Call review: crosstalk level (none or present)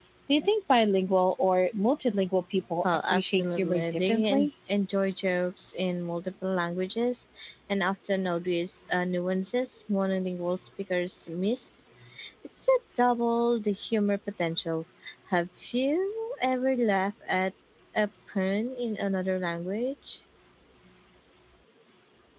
present